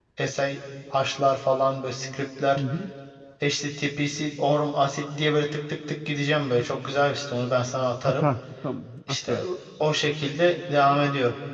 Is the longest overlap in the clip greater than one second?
No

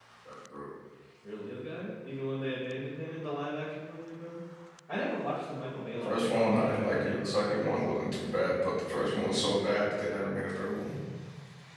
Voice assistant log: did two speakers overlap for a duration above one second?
Yes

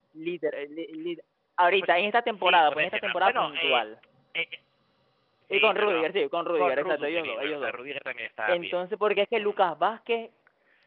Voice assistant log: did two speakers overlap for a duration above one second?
Yes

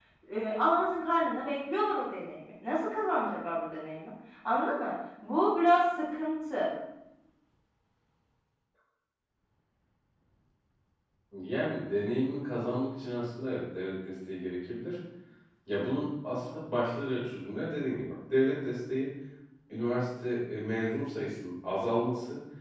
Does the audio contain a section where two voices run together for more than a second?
No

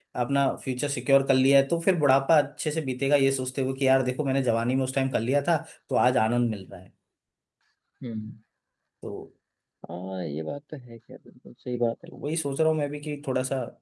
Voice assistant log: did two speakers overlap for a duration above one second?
No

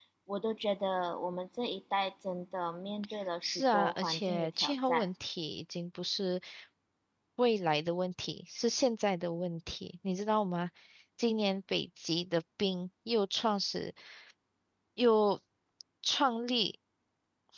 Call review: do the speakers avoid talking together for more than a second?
No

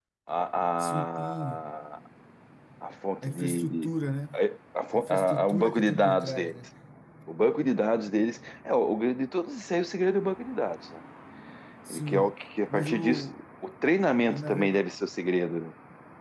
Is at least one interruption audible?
Yes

